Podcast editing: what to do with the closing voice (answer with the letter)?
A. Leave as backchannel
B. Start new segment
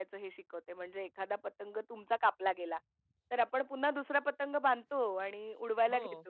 A